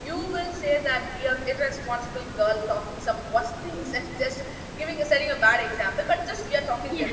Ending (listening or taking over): listening